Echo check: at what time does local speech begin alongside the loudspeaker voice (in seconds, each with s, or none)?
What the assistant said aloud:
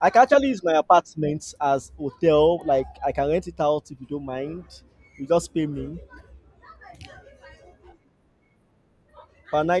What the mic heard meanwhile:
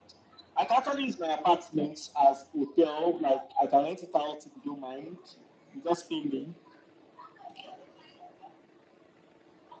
none